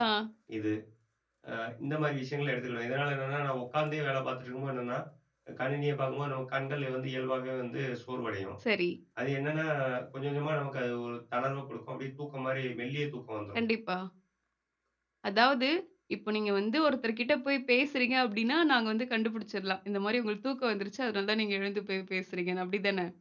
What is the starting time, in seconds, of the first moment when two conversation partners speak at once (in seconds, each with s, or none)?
none